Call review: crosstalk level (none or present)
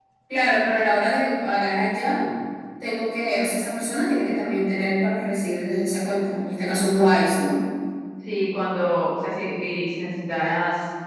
none